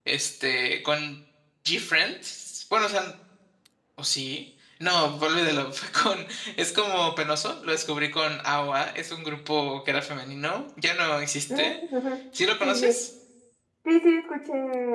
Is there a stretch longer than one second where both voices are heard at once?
No

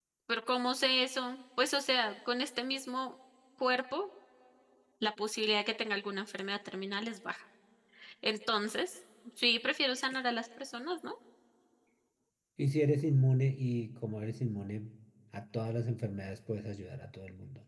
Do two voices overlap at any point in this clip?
No

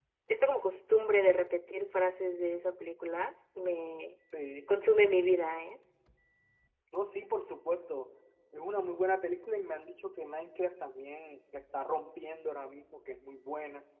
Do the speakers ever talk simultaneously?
No

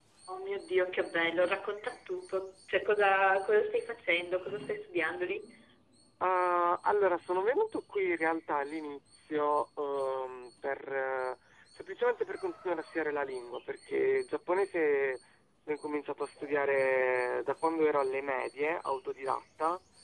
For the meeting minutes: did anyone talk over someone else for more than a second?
No

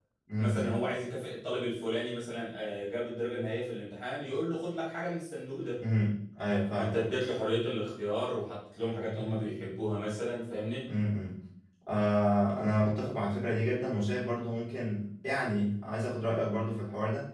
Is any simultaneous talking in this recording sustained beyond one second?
No

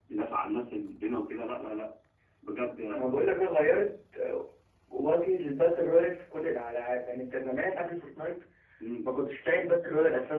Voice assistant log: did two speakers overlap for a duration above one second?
No

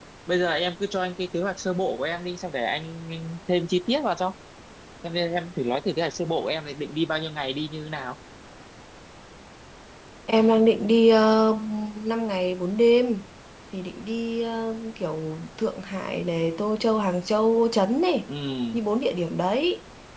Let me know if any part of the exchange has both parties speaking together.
No

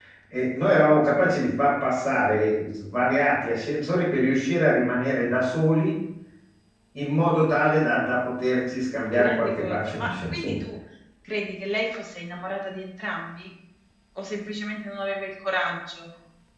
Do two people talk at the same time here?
Yes, from 9.1 s

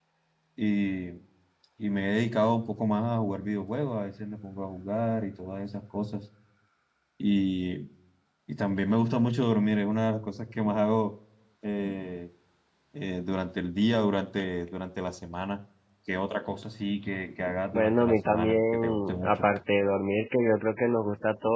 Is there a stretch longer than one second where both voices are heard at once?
Yes, from 17.7 s

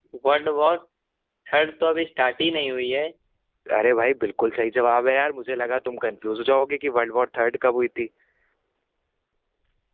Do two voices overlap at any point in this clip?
No

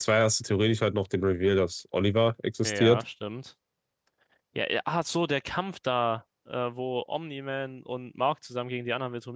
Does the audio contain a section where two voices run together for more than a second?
No

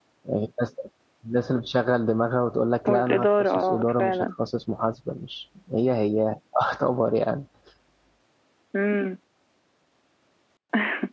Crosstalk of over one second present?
Yes, from 2.9 s

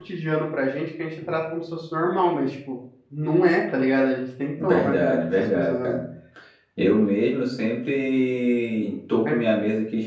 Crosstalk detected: Yes, from 4.6 s

